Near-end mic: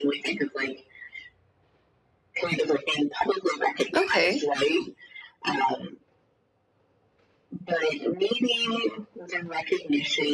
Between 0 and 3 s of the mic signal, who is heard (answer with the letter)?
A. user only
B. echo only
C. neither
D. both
B